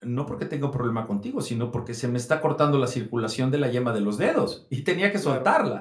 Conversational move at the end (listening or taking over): taking over